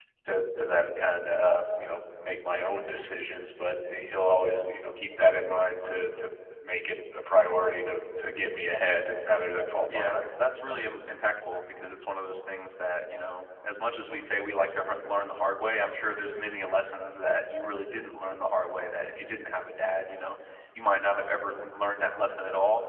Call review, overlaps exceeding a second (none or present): none